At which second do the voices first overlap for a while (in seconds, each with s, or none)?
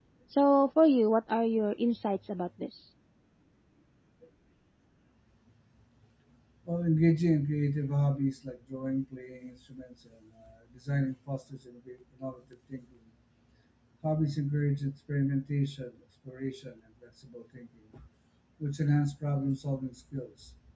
none